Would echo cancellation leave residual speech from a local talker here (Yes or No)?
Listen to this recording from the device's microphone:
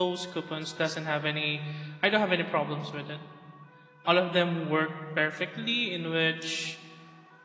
Yes